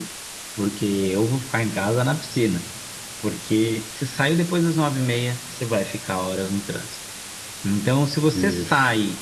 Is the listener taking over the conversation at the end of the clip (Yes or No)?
No